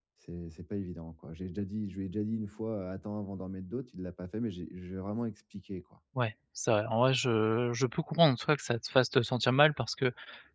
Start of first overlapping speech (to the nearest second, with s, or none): none